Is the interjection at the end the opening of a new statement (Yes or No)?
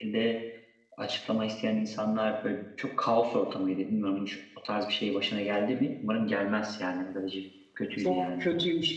Yes